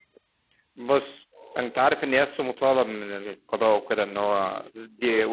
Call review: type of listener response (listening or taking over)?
listening